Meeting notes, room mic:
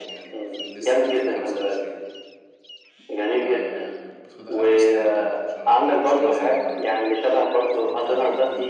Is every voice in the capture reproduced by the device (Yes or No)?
No